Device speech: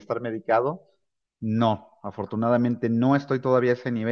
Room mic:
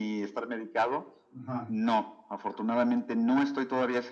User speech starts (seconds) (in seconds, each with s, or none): 1.4 s